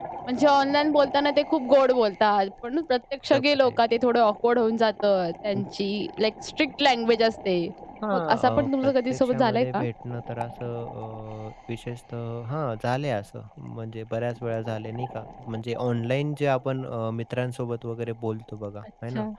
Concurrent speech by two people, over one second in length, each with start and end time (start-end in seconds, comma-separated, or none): 8.1-9.8